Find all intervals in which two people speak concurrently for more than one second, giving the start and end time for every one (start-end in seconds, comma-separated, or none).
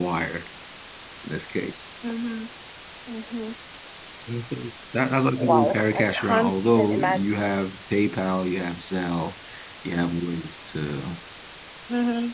5.4-7.5